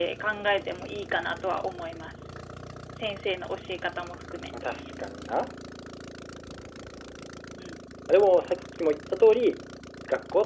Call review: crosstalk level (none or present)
none